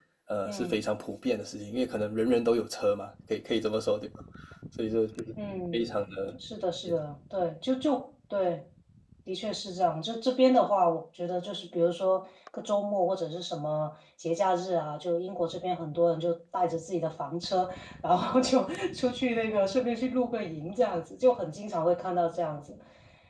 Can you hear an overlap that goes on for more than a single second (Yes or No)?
No